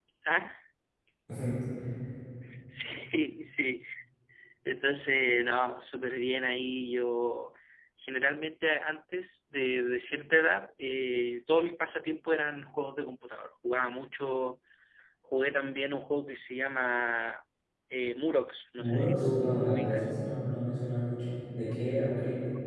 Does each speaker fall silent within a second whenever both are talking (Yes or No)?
No